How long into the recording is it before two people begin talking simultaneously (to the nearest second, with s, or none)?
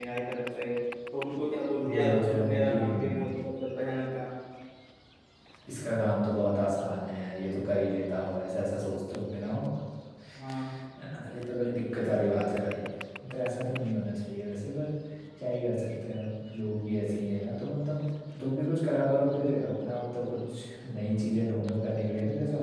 2 s